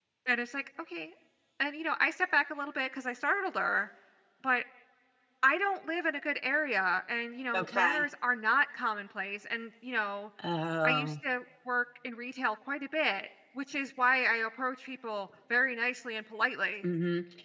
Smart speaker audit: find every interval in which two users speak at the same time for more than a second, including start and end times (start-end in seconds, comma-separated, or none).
none